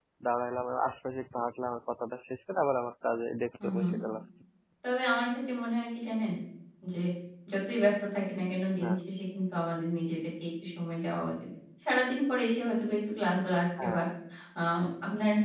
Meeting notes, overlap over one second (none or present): none